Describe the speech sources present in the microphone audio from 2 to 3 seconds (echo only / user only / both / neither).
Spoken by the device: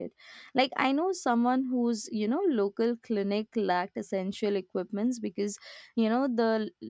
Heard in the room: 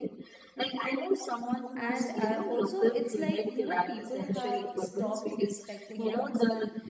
both